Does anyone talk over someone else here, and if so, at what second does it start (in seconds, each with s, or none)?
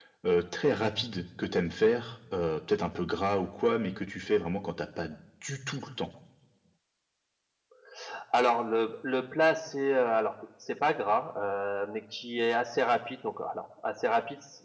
none